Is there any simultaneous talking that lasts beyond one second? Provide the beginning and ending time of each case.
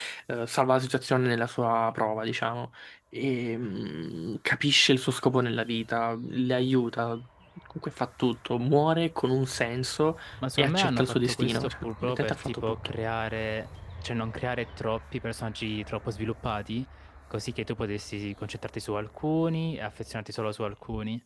10.6-12.8

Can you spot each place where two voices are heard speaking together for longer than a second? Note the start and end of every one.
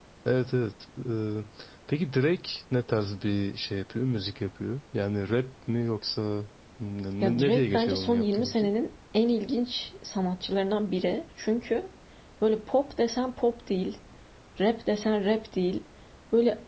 7.2-8.7

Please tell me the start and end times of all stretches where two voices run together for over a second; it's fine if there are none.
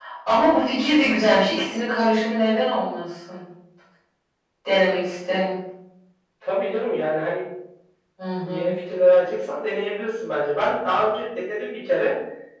none

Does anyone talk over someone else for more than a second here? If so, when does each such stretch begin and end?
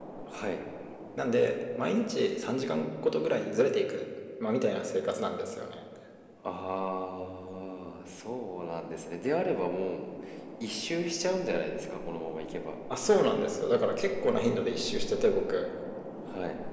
none

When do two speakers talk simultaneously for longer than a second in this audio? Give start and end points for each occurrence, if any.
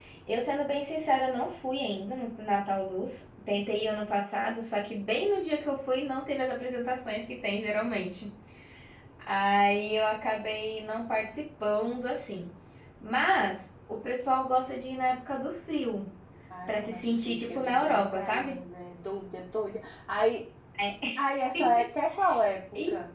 16.7-18.6

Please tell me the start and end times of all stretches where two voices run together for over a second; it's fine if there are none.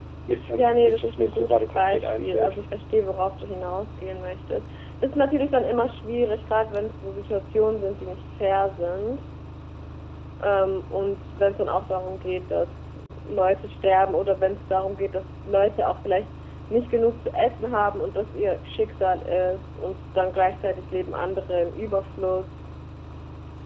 0.5-2.6

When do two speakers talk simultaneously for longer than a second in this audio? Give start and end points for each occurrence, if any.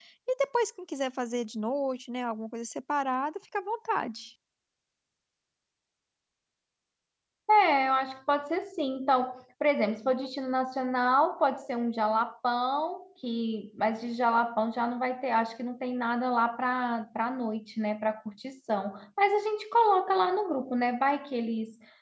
none

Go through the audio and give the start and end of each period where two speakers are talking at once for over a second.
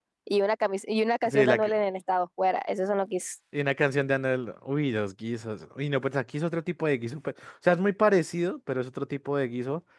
none

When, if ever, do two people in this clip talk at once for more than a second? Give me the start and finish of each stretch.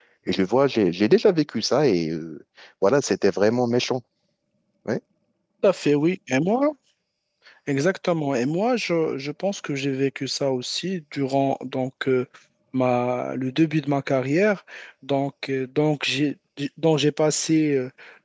none

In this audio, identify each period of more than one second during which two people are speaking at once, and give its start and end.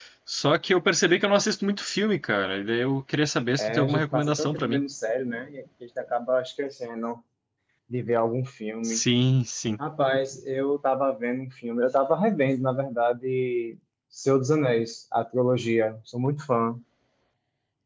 3.6-4.8

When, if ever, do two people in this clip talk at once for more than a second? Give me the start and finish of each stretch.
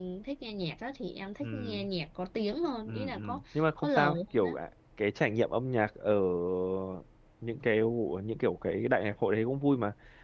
2.9-4.6

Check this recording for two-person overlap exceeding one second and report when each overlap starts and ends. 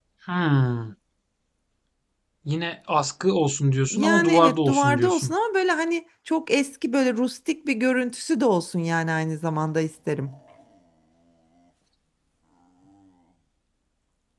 3.9-5.3

